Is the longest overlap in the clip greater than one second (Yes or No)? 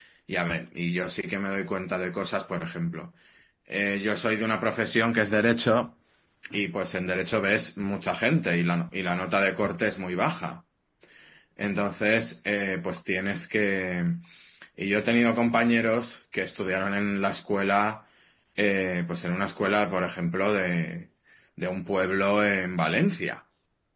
No